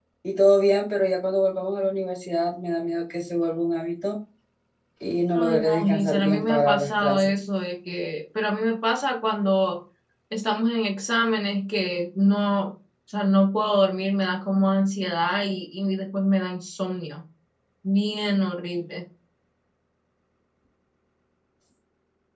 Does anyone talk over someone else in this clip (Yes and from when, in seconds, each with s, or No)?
Yes, from 5.4 s